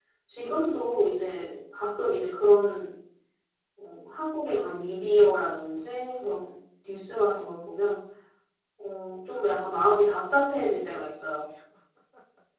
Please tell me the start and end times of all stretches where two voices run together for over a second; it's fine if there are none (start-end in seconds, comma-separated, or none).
9.7-11.4